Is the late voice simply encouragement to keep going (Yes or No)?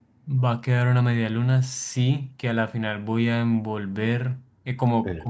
Yes